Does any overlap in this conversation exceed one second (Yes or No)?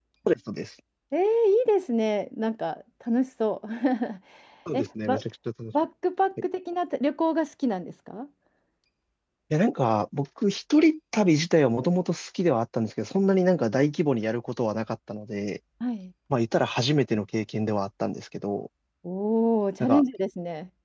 No